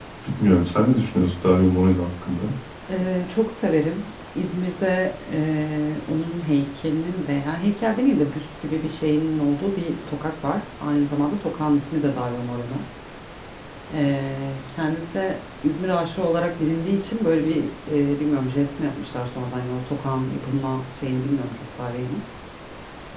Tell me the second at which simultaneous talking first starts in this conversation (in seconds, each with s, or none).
none